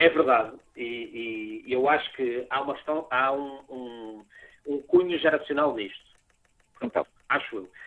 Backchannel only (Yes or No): Yes